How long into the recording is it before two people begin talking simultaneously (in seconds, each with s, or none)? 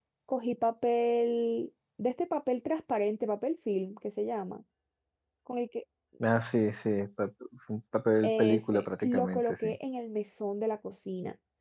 8.2 s